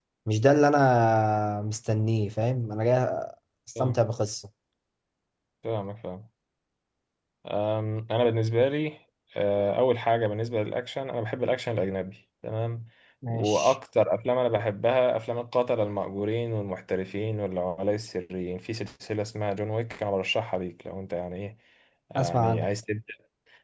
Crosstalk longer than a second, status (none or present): none